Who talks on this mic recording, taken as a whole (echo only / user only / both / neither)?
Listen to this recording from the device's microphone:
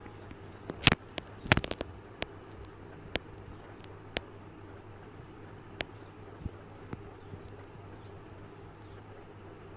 neither